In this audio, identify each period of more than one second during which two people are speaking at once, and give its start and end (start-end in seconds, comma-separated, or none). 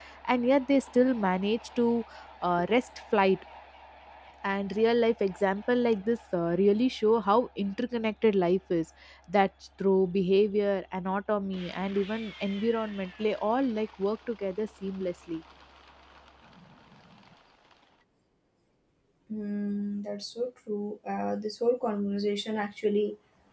none